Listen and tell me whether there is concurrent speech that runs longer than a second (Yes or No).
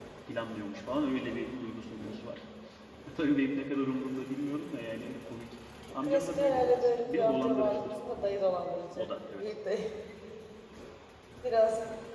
Yes